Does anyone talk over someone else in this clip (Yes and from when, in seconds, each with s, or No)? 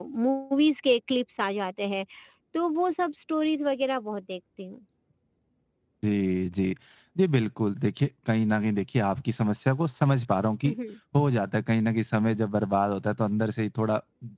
No